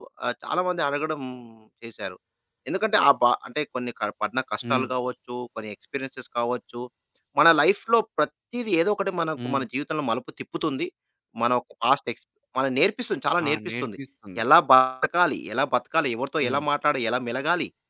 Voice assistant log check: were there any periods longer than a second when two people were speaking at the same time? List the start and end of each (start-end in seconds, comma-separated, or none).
none